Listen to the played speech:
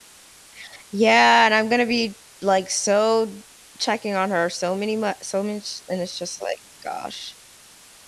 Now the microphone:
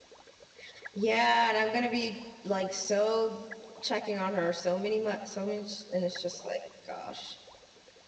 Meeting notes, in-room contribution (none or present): none